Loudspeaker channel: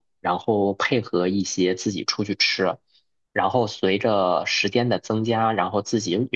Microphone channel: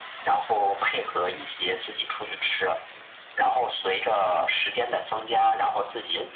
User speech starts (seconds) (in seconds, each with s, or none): none